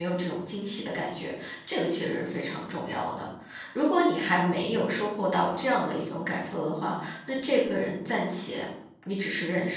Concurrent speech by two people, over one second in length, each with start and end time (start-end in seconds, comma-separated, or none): none